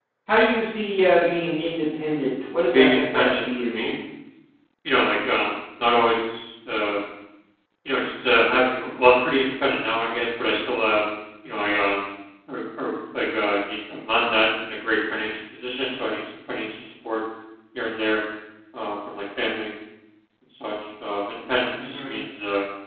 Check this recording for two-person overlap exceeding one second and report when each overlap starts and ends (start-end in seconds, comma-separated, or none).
2.7-3.9